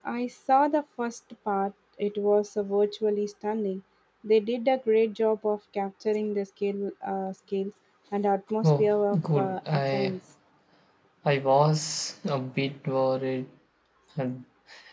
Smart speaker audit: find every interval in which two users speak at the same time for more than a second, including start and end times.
8.6-10.2

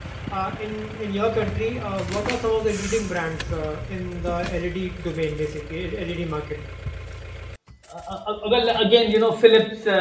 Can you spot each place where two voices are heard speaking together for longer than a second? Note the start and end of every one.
none

